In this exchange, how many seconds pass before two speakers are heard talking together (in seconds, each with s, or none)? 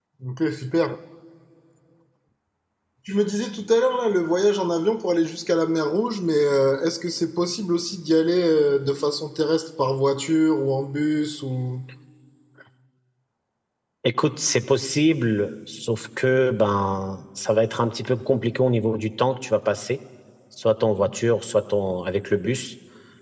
none